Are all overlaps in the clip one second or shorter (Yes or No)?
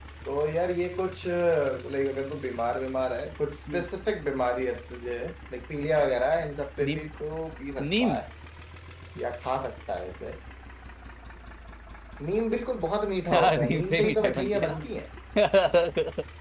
No